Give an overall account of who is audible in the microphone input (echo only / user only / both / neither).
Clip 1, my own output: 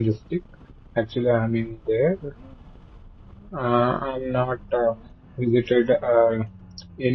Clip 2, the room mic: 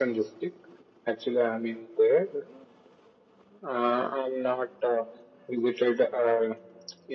echo only